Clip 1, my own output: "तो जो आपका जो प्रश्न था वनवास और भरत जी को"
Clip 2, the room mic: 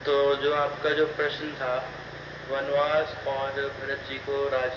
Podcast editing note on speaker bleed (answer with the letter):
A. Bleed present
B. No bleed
A